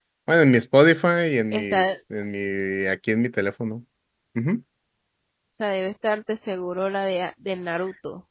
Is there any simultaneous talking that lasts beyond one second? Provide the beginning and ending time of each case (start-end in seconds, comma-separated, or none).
none